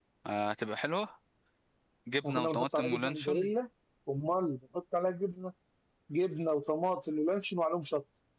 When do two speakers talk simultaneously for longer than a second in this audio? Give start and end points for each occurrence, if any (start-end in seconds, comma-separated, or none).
2.2-3.5